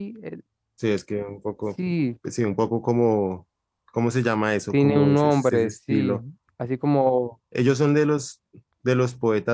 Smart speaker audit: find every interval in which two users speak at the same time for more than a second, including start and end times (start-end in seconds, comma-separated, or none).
4.7-6.1